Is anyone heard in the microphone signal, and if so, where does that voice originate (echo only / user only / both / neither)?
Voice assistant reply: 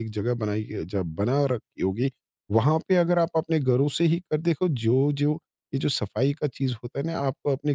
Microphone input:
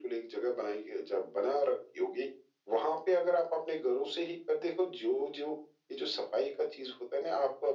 echo only